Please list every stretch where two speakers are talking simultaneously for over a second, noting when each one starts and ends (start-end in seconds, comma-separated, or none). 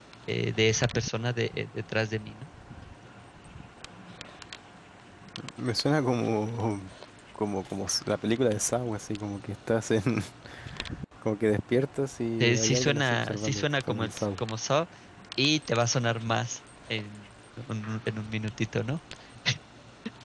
12.4-14.4